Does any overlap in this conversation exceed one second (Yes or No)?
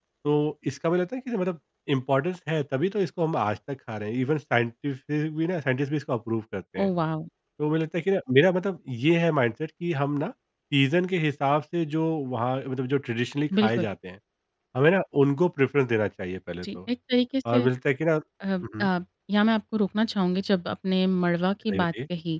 No